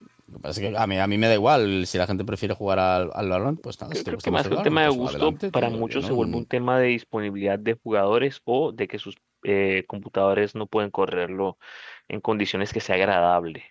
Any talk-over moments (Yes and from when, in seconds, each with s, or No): Yes, from 3.9 s